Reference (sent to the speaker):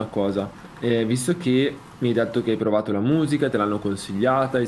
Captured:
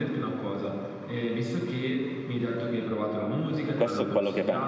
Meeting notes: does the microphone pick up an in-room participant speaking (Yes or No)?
Yes